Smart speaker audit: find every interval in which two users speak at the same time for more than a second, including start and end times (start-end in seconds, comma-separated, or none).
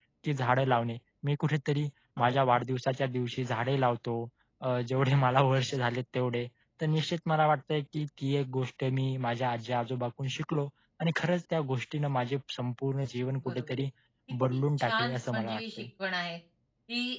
14.5-15.9